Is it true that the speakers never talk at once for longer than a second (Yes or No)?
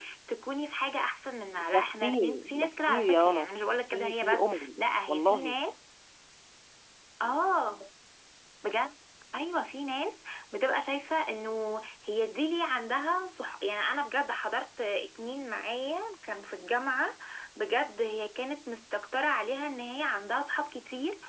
No